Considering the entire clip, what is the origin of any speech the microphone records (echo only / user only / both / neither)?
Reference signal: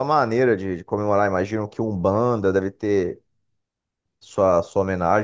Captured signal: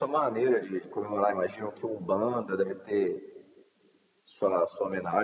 echo only